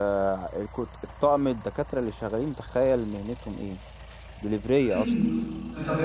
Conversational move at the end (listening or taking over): taking over